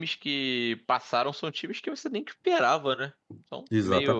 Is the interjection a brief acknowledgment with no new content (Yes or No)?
No